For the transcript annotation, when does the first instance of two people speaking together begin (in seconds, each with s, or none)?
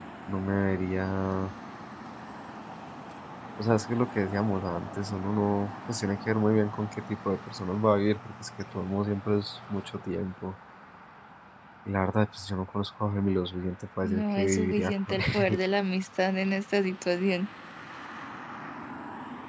14.0 s